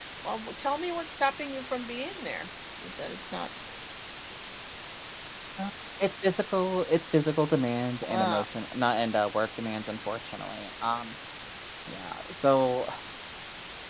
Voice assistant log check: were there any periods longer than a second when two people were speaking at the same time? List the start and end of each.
none

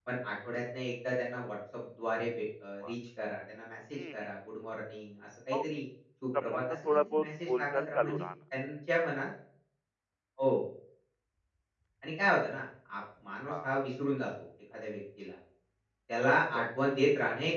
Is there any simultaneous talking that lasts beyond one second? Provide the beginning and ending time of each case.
6.4-8.3

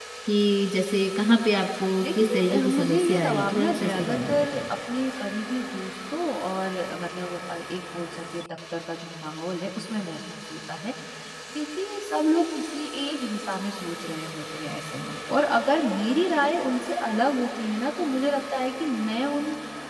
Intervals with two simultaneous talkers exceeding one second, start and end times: 2.0-4.7

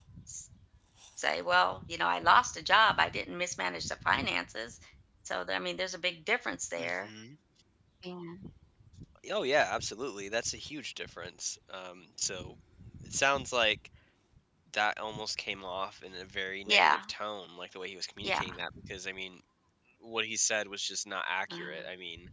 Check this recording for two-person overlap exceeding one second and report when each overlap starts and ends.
none

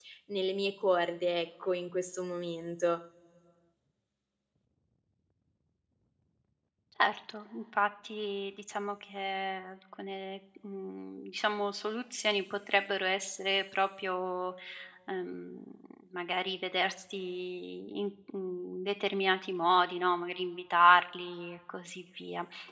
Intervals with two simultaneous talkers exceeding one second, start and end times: none

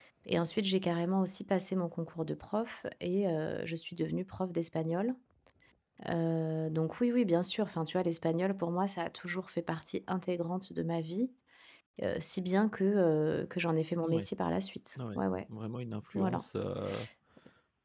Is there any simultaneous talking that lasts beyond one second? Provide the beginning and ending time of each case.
none

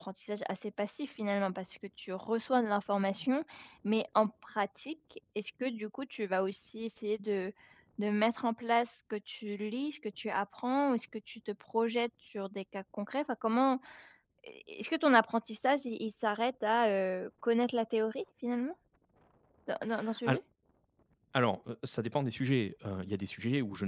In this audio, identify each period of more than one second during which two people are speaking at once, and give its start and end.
none

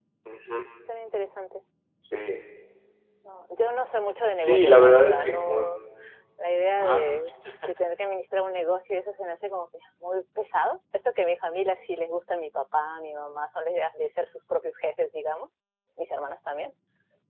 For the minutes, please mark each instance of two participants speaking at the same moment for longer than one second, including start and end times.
4.4-5.7

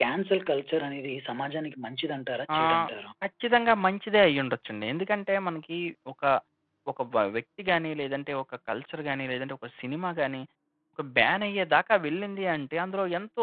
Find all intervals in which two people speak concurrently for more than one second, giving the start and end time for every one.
none

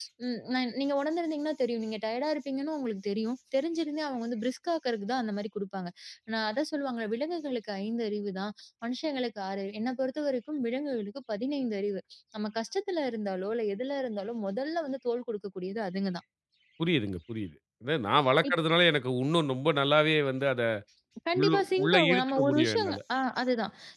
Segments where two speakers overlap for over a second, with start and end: 21.4-23.0

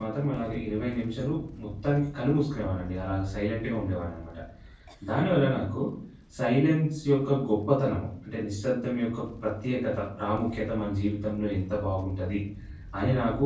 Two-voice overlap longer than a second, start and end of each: none

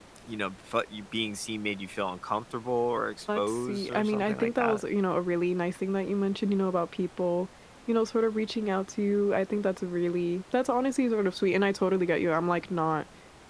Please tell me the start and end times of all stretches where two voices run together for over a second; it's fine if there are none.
3.4-4.8

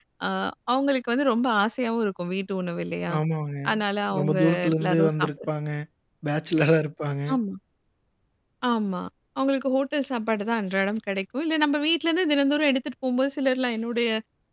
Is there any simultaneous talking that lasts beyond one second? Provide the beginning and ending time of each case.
4.2-5.5

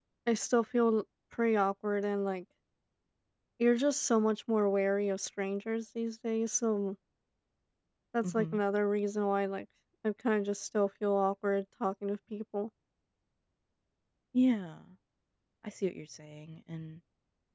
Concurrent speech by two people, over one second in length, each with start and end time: none

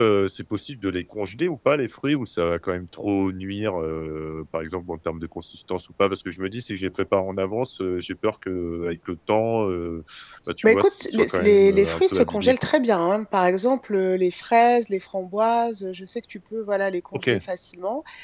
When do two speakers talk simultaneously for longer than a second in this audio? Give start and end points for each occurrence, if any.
10.6-12.7

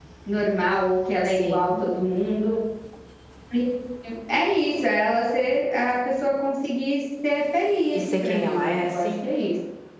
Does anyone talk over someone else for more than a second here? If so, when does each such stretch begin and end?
7.9-9.2

